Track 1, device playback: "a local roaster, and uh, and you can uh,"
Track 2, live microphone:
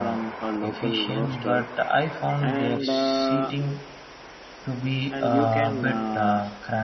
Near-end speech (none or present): present